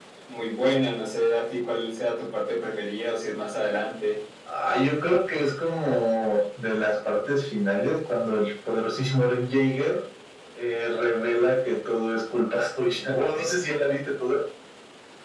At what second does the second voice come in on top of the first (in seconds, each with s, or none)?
none